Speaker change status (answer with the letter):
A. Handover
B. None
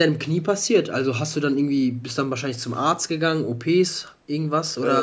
A